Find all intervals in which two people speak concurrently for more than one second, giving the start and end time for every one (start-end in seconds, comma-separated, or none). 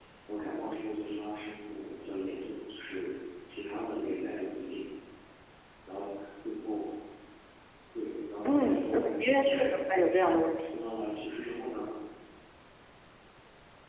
8.4-9.8